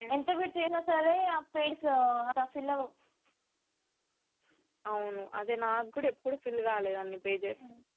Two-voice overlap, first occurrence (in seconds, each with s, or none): none